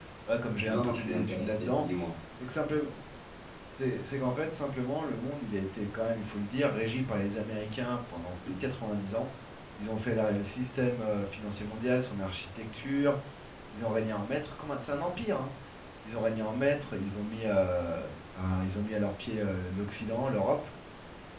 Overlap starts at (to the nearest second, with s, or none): 1 s